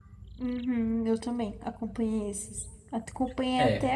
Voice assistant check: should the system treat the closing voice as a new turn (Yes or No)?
No